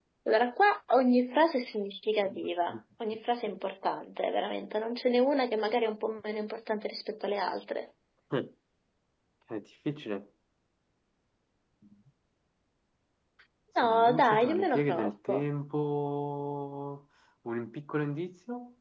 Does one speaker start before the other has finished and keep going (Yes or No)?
Yes